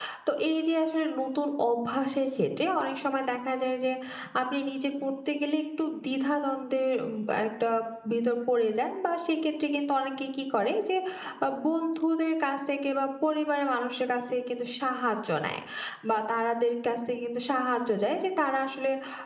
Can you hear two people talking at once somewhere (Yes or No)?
No